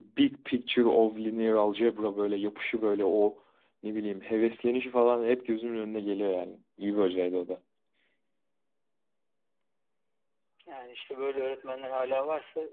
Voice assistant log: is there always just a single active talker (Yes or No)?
Yes